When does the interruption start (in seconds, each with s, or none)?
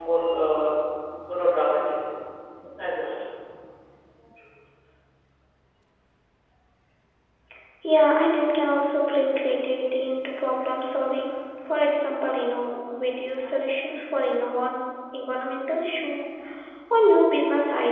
none